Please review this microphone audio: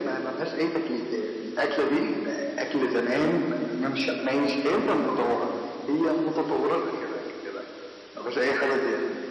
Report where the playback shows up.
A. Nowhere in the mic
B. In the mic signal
B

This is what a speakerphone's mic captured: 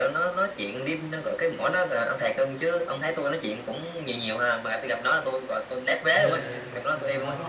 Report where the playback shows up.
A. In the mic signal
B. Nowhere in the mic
A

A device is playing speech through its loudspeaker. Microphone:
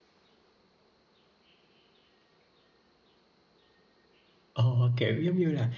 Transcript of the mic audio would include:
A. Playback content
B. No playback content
B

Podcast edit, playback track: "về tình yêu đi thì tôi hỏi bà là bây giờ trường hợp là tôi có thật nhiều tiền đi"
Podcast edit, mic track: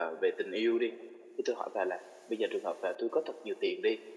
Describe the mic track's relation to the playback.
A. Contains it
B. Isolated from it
A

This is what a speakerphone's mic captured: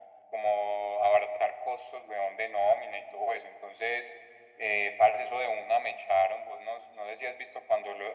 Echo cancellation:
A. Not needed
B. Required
B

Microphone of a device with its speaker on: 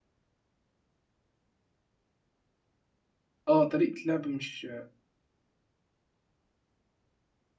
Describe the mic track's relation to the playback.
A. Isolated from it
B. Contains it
A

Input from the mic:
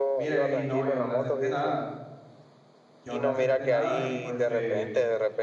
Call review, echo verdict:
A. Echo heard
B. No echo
A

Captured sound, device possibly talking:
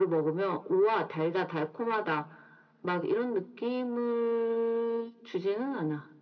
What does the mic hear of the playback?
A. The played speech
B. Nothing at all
A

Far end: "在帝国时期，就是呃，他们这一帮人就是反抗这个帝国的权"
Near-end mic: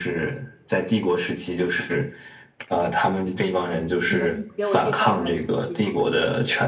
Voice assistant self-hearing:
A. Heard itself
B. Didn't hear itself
A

